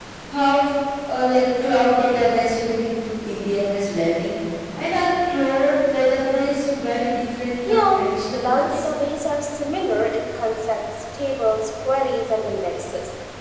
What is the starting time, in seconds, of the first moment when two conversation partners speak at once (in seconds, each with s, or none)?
7.7 s